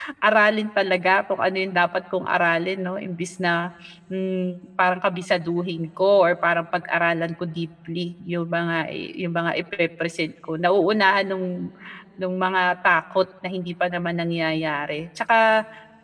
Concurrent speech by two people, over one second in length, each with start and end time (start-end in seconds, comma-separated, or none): none